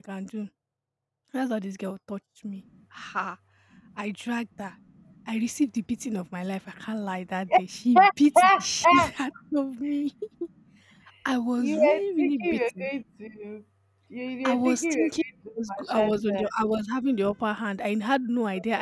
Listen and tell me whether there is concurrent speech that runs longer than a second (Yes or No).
Yes